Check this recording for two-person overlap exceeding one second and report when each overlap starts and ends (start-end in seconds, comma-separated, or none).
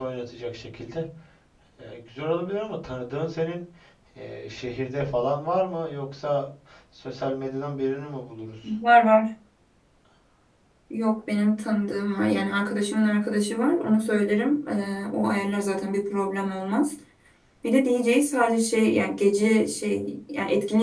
none